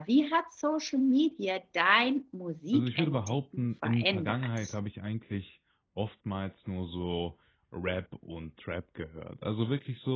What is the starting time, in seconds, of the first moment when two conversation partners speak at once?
2.7 s

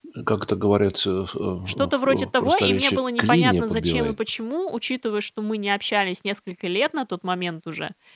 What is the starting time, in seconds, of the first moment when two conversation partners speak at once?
1.7 s

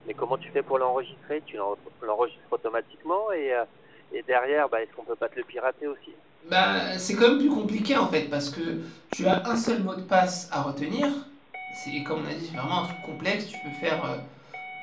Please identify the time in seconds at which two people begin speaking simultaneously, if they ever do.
none

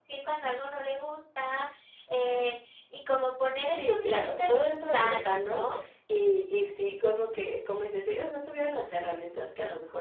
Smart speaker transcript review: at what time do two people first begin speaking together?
3.7 s

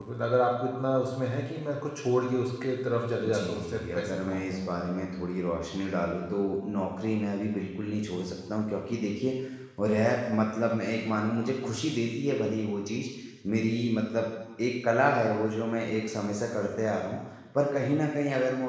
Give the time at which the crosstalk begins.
3.2 s

